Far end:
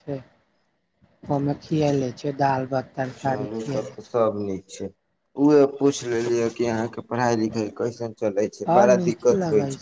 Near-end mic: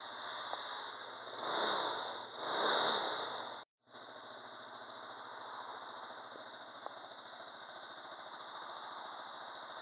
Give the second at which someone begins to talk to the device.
none

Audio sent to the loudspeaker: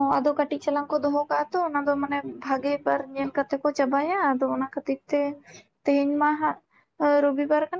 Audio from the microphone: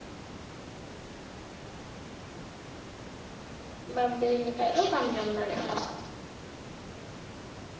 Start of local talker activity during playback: 4 s

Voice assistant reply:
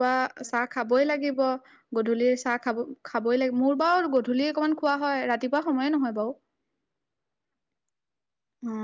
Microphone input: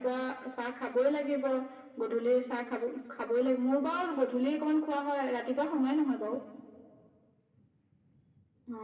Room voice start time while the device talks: none

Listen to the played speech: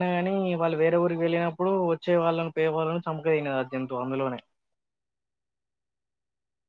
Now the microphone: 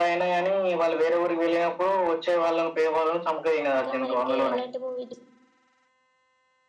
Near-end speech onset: 4 s

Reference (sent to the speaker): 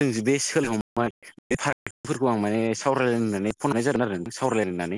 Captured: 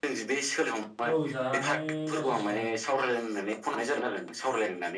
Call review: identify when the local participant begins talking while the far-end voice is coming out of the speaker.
1 s

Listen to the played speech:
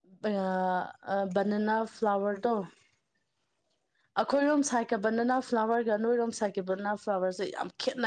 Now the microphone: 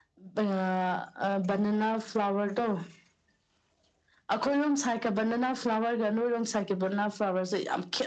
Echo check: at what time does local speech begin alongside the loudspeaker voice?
none

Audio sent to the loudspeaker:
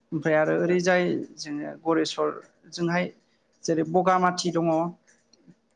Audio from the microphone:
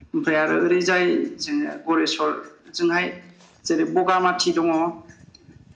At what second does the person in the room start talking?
none

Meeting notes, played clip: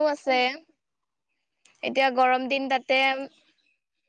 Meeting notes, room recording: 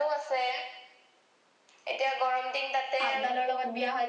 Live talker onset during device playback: 3 s

